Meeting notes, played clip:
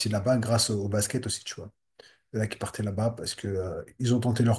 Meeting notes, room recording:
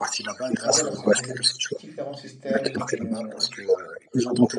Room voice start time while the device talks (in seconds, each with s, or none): 0.6 s